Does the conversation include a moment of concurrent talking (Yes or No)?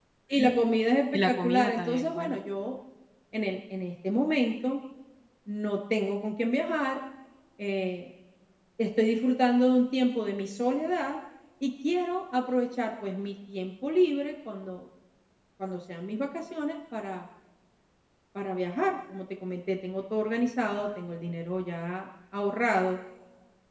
Yes